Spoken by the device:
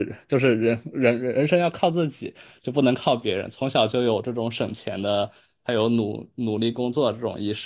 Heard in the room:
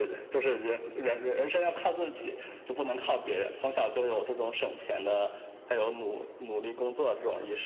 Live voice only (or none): none